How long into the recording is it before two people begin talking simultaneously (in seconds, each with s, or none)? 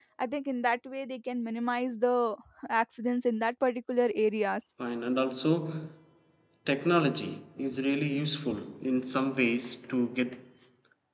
none